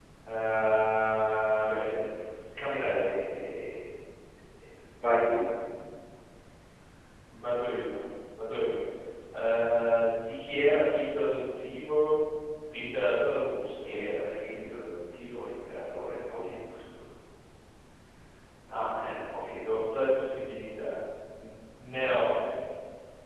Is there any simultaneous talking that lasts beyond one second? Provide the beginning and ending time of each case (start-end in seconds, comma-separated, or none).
none